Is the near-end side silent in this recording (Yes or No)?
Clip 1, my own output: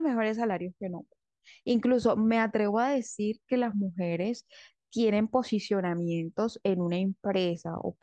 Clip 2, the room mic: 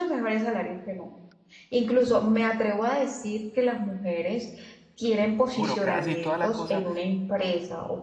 No